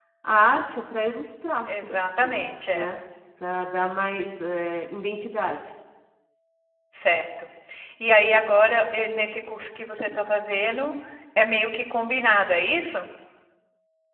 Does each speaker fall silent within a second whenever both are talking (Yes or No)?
No